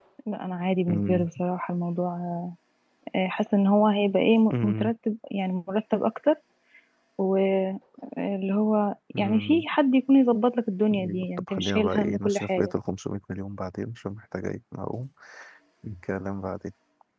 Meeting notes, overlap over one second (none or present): present